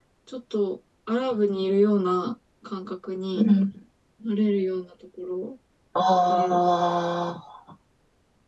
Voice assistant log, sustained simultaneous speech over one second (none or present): none